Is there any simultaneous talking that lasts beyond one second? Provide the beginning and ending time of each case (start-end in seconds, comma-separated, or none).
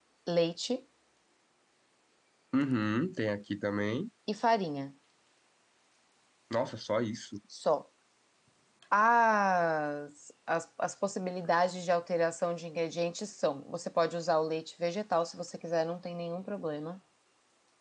none